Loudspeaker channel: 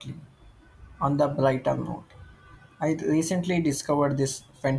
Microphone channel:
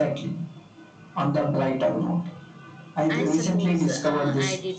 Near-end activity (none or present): present